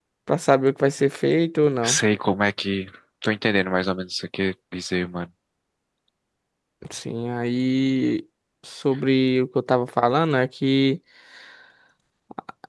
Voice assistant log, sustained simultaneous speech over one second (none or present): none